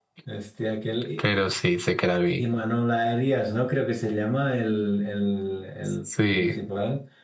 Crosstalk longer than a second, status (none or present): none